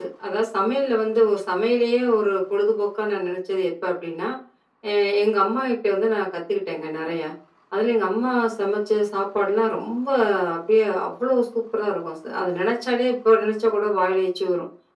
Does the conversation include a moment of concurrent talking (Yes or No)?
No